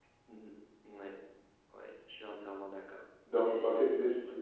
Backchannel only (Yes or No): No